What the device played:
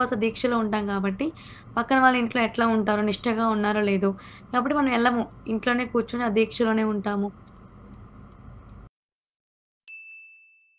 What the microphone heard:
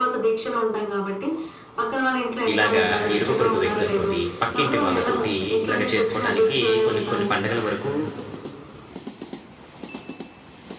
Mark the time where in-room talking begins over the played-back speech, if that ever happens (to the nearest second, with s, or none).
3 s